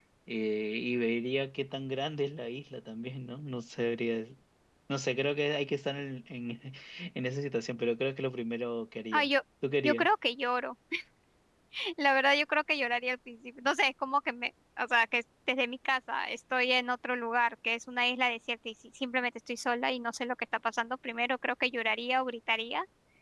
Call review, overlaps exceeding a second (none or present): none